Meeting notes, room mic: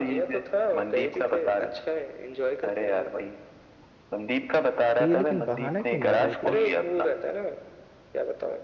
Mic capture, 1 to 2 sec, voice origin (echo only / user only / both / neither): echo only